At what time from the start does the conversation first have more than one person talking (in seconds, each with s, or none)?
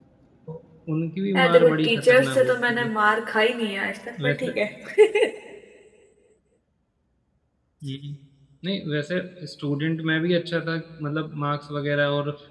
1.4 s